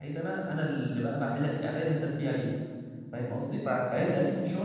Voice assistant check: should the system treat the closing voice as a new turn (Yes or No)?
No